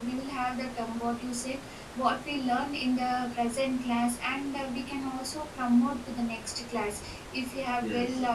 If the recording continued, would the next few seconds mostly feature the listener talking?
No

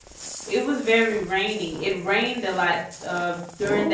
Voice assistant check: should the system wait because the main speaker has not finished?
Yes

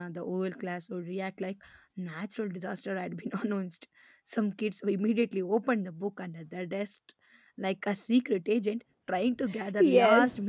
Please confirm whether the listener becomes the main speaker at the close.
Yes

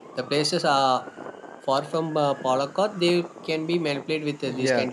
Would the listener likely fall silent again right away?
No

